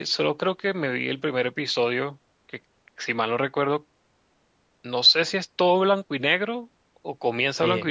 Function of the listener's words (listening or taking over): taking over